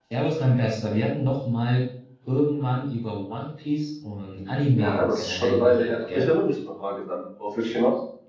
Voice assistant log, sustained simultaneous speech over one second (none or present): present